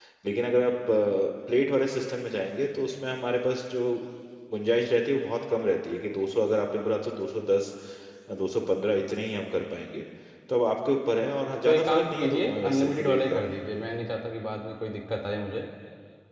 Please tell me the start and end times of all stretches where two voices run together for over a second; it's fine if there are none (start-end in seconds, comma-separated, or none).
11.6-13.4